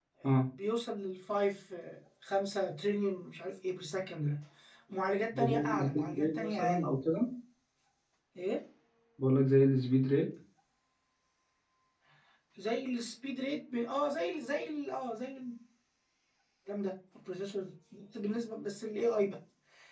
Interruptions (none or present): present